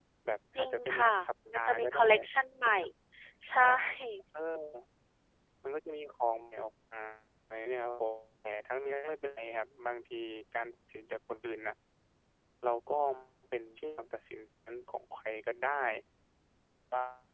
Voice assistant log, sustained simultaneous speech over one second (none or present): present